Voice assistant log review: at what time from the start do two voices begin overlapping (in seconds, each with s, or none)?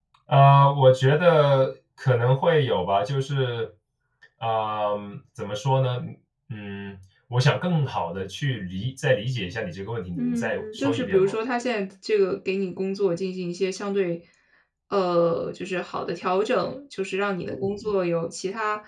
10.2 s